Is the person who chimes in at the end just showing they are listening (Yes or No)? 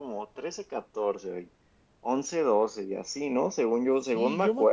No